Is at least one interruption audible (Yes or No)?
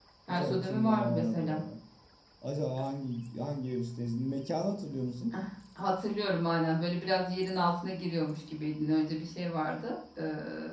Yes